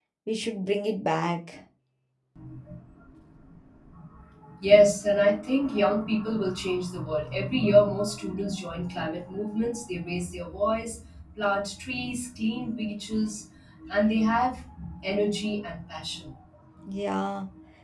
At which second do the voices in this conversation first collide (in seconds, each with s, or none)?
none